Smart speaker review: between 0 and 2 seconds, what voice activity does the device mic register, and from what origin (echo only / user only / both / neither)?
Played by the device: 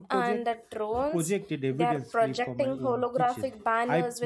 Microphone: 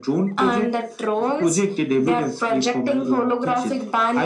echo only